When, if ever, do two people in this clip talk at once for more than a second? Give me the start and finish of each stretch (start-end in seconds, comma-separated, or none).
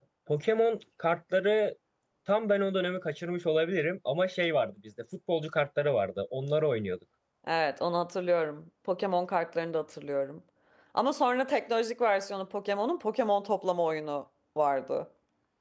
none